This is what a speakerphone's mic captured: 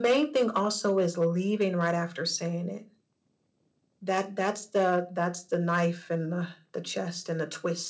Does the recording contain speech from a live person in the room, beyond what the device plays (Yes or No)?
No